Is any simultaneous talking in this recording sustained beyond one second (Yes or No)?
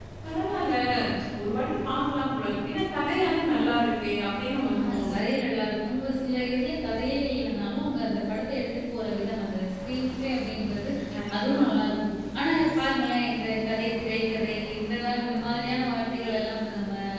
No